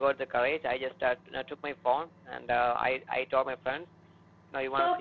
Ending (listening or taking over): taking over